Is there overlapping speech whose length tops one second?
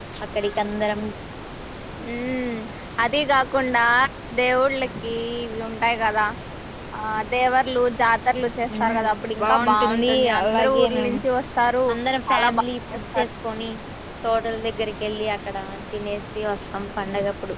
Yes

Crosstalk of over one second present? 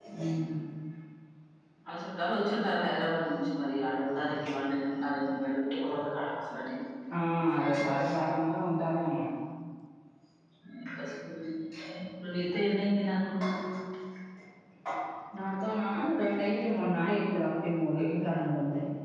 No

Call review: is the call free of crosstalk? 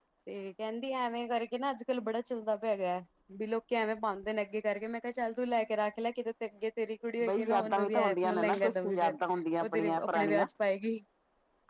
No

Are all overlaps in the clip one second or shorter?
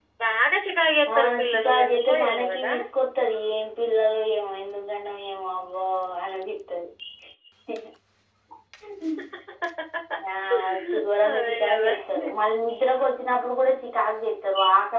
No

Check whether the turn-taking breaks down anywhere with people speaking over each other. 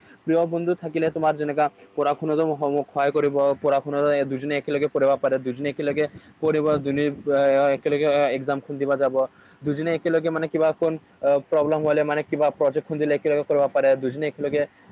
No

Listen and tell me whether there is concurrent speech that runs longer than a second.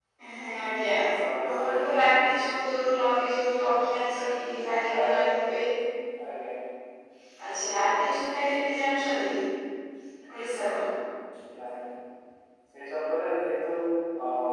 No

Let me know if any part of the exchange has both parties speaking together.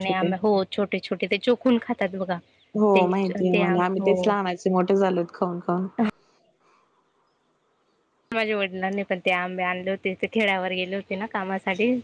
Yes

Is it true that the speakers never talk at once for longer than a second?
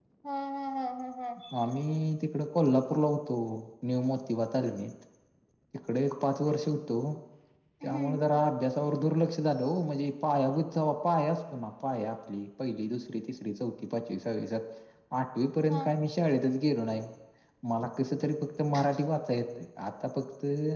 Yes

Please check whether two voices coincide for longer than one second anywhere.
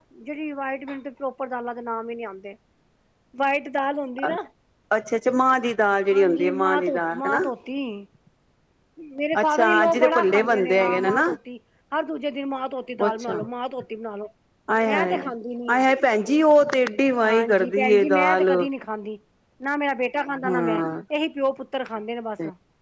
Yes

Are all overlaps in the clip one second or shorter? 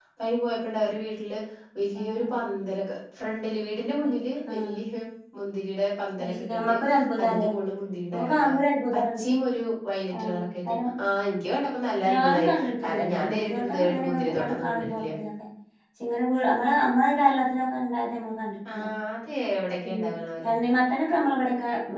No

